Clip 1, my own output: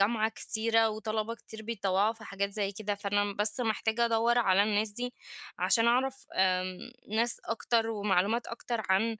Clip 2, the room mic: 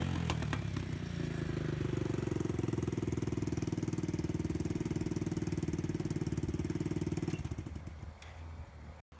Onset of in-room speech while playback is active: none

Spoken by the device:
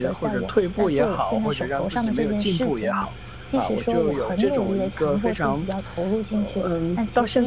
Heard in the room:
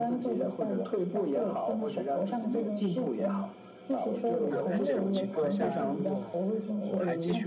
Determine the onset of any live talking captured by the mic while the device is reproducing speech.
4.5 s

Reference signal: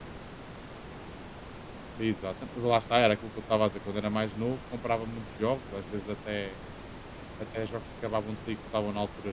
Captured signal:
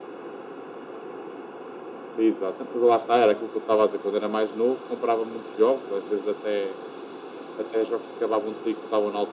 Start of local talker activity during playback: none

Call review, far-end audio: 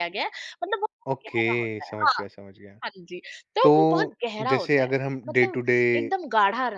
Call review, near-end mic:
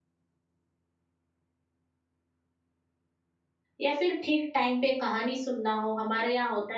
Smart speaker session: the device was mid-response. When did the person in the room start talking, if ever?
3.8 s

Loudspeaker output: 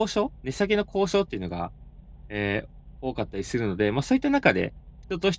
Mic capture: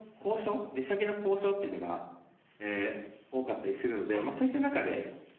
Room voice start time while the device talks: 4.1 s

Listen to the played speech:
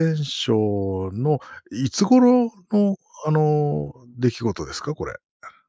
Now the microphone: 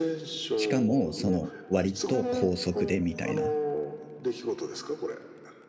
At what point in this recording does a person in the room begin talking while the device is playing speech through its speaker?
0.6 s

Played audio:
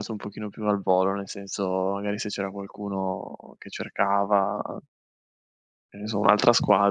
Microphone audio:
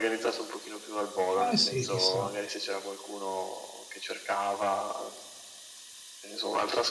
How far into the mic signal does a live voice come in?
1.3 s

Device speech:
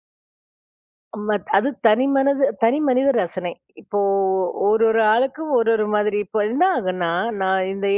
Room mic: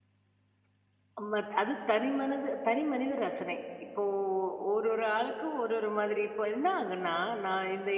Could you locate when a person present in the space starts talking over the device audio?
none

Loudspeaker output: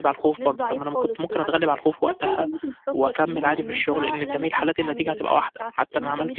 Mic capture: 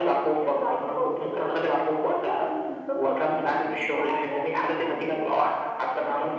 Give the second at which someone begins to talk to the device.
none

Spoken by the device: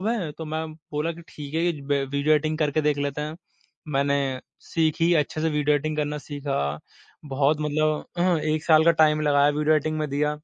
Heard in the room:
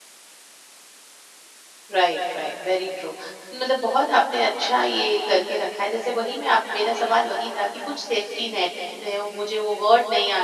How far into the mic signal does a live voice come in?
1.9 s

